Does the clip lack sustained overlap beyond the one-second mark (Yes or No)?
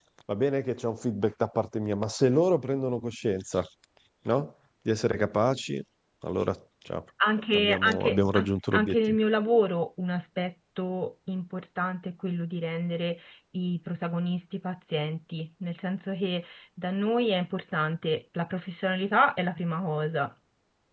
No